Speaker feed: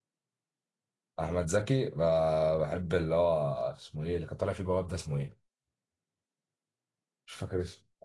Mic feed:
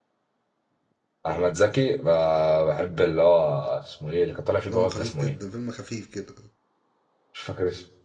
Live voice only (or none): دمه خفيف جدا فيلم خفيف كده